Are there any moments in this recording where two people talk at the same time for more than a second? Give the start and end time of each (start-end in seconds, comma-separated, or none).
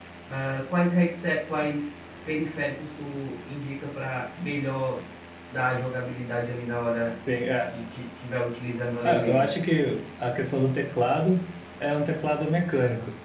none